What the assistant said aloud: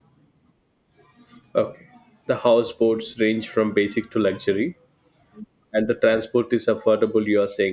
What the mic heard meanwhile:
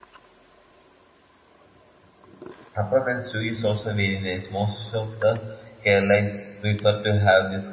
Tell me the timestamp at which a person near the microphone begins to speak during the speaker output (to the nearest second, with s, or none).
3 s